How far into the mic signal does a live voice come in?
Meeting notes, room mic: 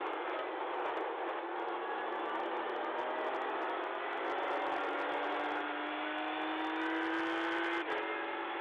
none

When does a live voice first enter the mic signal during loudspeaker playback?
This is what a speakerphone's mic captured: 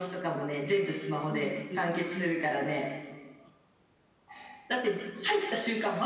1.3 s

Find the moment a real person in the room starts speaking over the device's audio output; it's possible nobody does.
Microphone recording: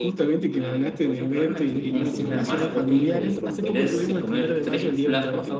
1.1 s

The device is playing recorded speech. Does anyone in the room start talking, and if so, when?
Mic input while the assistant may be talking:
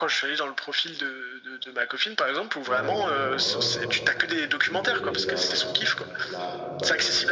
2.6 s

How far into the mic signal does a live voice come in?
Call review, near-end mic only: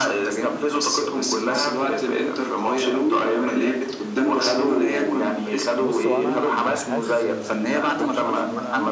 5.8 s

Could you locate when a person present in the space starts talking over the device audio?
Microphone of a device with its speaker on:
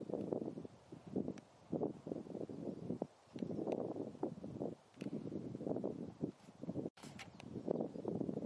none

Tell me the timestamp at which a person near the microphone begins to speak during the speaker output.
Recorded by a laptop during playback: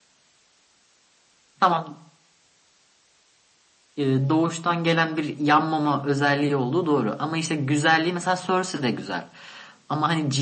none

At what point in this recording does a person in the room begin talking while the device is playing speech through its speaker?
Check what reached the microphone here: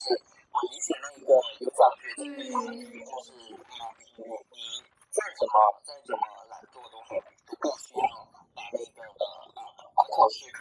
2.1 s

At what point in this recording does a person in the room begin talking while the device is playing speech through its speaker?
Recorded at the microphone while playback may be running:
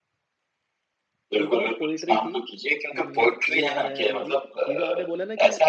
1.4 s

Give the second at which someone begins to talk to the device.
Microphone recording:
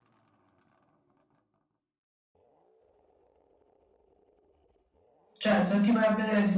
5.4 s

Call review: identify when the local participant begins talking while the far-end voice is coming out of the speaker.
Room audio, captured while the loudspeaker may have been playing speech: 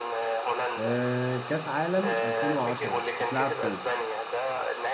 0.8 s

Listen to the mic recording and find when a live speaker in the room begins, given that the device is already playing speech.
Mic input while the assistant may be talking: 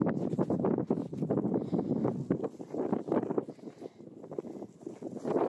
none

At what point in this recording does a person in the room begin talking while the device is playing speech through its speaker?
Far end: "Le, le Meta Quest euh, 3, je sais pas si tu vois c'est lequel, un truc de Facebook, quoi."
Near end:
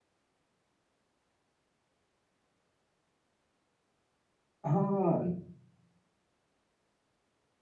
4.6 s

